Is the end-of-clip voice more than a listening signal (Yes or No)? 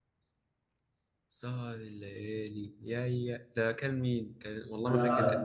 Yes